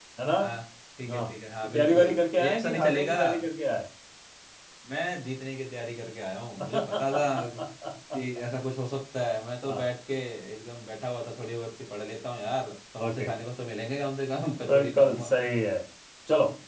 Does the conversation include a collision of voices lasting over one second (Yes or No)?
Yes